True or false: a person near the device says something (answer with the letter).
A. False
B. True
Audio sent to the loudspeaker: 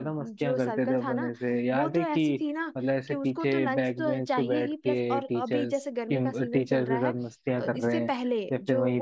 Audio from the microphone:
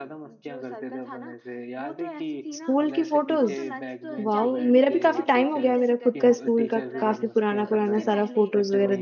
B